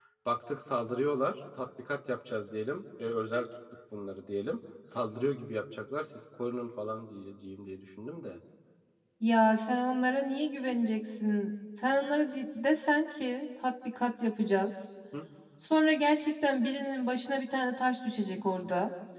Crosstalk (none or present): none